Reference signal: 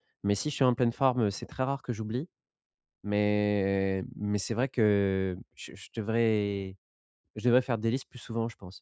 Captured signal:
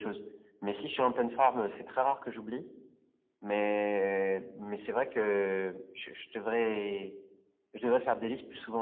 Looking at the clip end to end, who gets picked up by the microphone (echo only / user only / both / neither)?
echo only